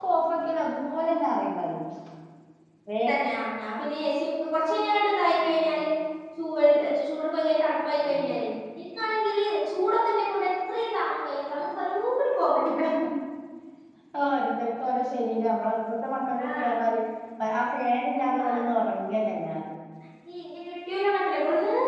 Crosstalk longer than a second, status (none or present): none